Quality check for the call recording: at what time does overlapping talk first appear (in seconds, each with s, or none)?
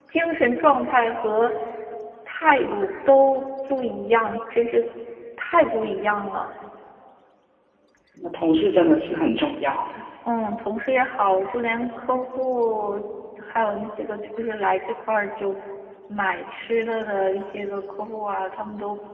none